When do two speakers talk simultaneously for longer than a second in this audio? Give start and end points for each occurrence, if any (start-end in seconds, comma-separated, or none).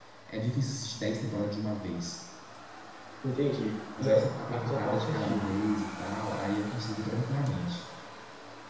4.0-5.5